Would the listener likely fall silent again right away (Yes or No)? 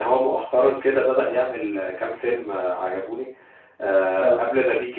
Yes